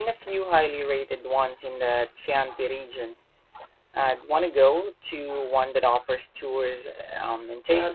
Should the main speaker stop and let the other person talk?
Yes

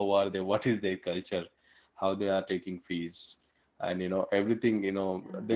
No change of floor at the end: Yes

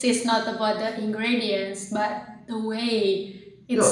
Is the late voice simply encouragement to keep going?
No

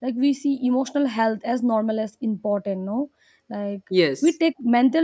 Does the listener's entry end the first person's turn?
No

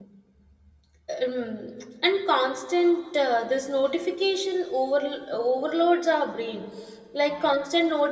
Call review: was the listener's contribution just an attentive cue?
Yes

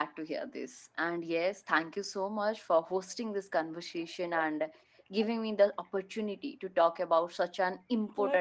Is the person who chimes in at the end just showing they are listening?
Yes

